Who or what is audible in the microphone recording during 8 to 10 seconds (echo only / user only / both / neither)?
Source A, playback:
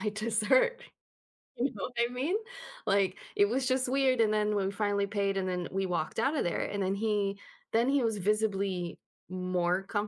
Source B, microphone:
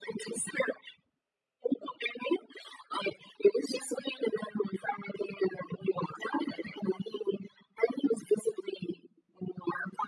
echo only